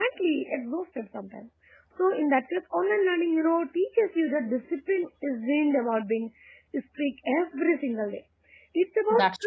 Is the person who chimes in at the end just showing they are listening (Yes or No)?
Yes